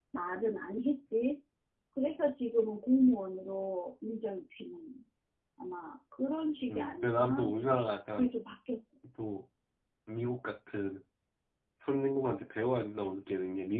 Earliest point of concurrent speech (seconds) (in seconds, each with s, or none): 6.7 s